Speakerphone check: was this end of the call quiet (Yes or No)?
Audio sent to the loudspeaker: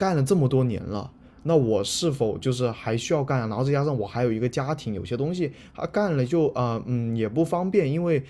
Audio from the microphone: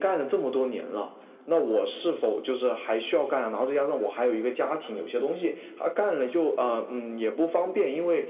Yes